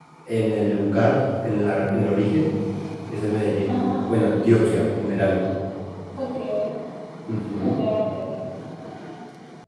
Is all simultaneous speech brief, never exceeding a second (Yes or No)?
Yes